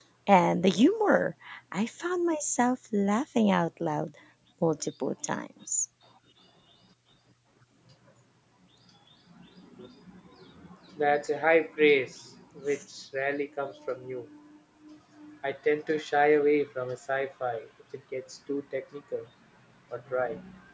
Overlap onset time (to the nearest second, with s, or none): none